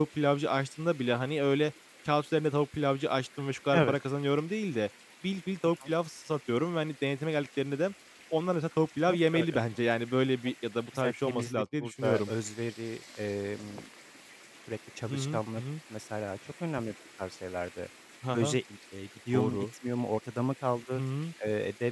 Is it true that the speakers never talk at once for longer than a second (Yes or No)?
No